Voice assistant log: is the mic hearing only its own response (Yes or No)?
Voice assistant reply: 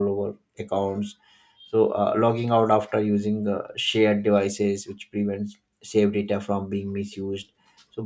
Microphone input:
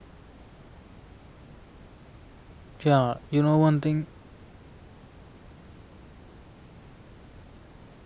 No